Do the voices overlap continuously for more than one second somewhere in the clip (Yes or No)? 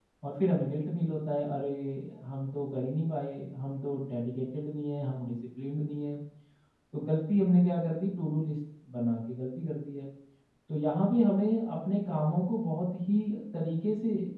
No